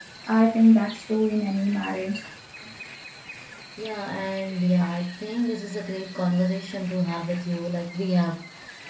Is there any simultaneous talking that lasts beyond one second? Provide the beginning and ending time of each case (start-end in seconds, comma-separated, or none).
none